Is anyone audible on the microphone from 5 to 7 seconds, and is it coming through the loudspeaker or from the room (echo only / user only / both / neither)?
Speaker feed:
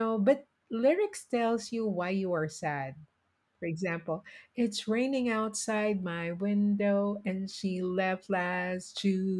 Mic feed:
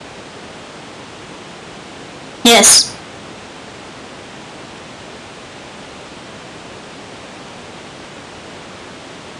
neither